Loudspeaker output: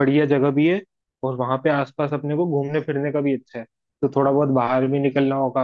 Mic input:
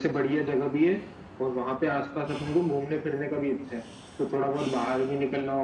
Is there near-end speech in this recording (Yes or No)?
No